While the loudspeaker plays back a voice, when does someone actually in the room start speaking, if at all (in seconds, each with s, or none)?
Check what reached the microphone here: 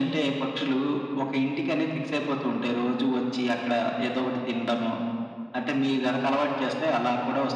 none